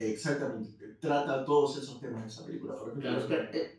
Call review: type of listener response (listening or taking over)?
taking over